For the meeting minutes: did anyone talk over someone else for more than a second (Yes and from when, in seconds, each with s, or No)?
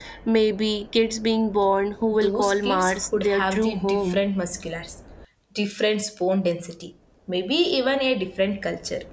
Yes, from 2.1 s